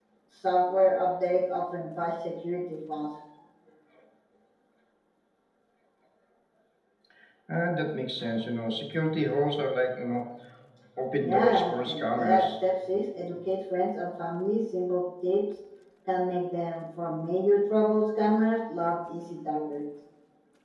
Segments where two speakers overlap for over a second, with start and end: 11.2-12.5

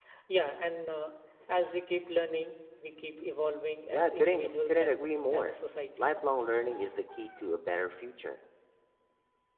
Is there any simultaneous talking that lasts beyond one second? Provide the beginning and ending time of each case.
3.9-5.6

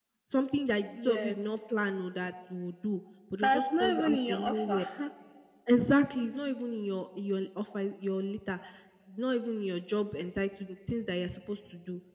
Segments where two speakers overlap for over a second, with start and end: 3.4-4.8

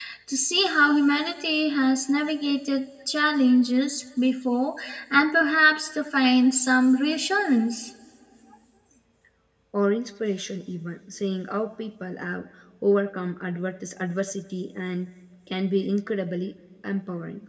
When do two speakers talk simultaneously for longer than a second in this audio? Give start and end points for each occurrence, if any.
none

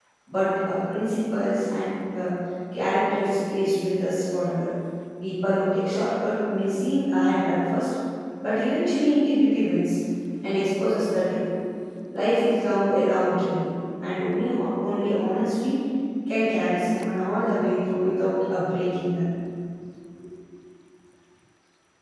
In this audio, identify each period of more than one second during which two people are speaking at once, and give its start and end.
none

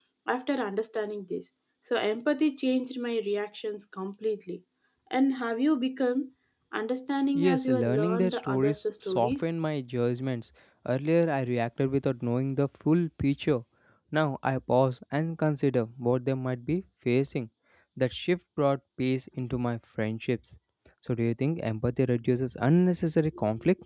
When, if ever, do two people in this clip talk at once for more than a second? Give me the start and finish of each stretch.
7.3-9.4

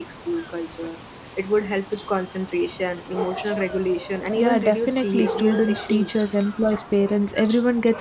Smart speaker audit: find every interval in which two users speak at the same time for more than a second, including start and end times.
4.4-6.2

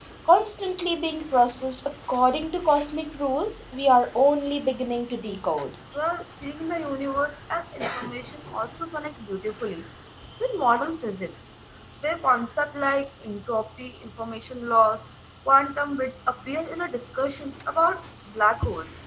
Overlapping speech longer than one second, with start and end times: none

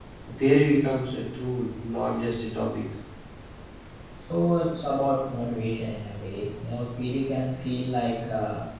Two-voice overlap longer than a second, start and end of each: none

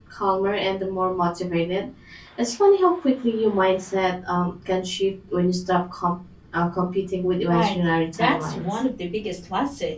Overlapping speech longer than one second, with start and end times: 7.5-8.8

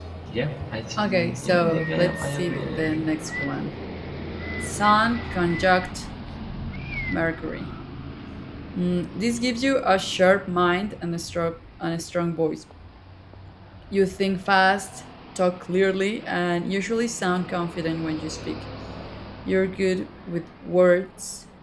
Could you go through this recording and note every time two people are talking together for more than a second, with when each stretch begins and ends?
1.0-3.1

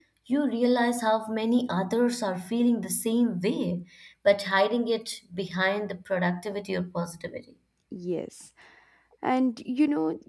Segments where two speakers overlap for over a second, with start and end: none

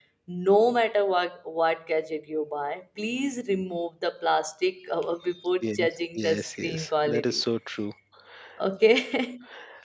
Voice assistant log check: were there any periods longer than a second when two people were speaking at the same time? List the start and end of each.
6.2-7.4

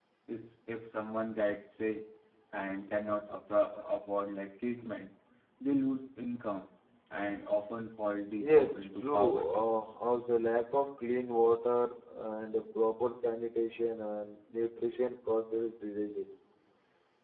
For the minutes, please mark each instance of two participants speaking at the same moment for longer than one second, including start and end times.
8.4-9.6

